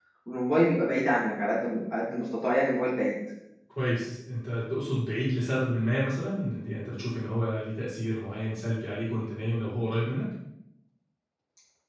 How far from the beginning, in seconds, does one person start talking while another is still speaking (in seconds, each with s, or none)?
none